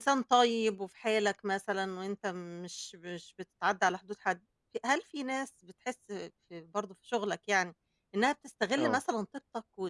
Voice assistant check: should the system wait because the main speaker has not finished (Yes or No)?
Yes